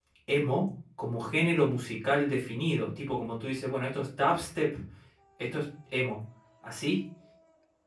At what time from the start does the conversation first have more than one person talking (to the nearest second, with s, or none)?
none